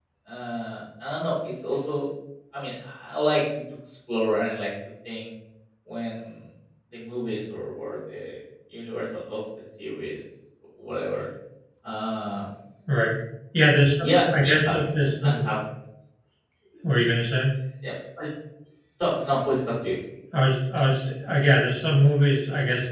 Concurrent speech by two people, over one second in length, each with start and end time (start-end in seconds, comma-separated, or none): 14.0-15.5